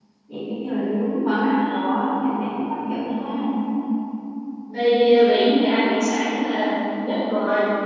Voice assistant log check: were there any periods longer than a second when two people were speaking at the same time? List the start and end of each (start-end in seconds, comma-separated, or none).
none